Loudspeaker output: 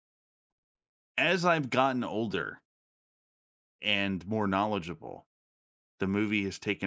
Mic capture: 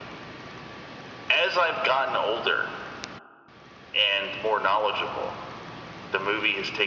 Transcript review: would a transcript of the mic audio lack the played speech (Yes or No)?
No